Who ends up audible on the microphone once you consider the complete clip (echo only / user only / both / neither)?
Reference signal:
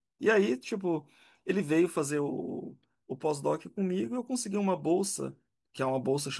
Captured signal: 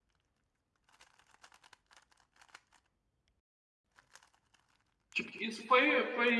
user only